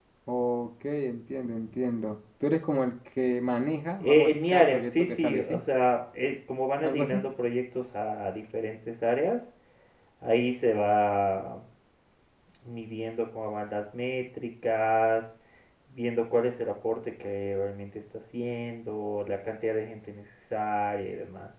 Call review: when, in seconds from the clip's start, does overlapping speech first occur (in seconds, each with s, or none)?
4.0 s